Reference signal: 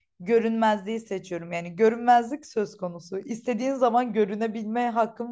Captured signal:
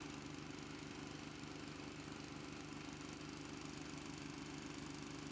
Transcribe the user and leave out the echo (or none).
none